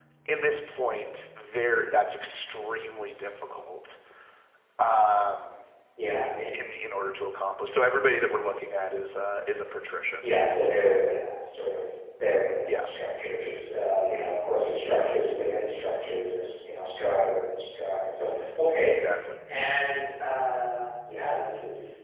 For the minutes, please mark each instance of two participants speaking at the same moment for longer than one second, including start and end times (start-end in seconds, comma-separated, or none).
none